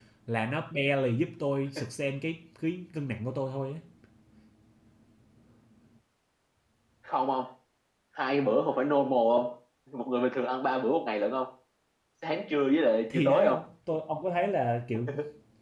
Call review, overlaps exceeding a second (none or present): none